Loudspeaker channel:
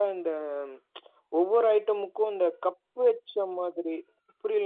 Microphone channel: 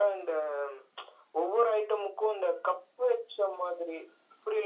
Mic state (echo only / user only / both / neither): echo only